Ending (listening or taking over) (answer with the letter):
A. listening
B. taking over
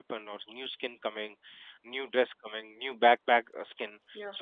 A